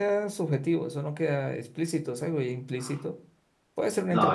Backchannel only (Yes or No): No